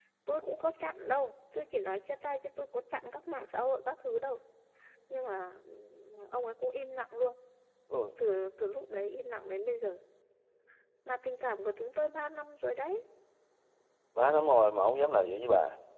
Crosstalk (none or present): none